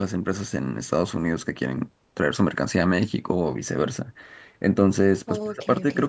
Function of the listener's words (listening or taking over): listening